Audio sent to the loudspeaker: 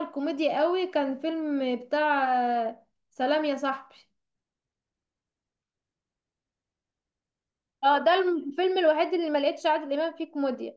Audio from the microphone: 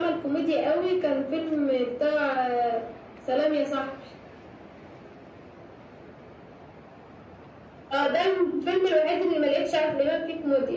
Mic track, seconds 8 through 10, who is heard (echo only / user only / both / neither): echo only